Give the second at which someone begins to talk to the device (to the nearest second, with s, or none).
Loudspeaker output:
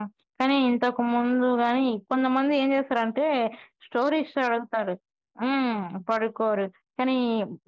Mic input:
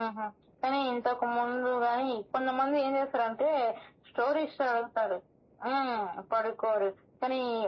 none